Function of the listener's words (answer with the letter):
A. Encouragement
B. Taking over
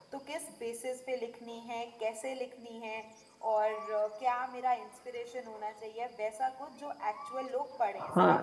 B